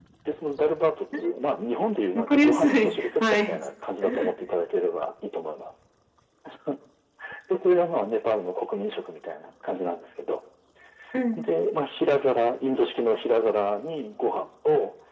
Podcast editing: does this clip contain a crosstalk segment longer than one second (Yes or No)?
Yes